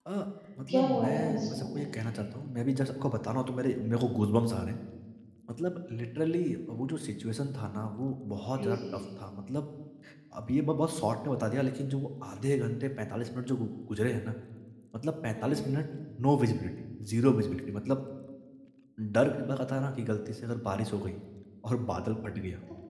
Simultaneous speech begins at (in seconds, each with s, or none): 0.7 s